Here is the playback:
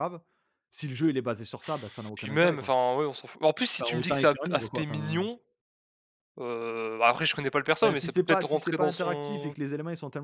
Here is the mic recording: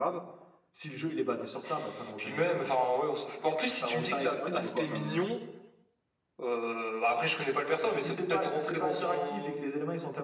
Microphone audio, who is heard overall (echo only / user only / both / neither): echo only